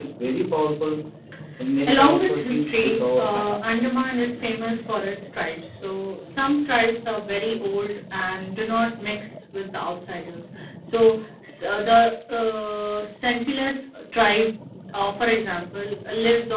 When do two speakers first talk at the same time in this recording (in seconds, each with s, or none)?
1.9 s